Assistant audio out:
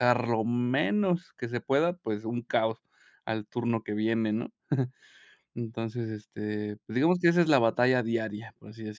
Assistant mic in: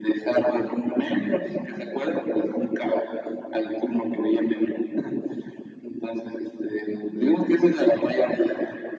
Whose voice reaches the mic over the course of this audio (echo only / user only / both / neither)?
echo only